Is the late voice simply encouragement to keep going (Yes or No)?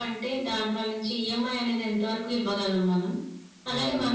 Yes